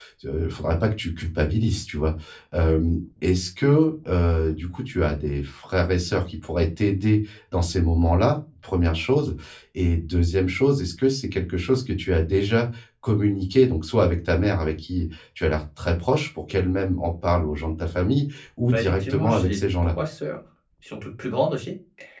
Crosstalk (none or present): present